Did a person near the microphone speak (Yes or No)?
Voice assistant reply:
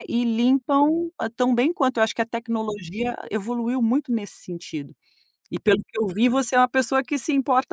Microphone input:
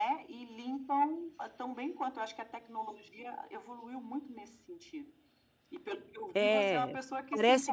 Yes